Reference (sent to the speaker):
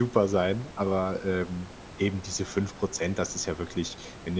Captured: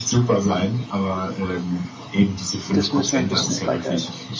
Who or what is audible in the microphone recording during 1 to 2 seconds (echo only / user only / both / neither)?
echo only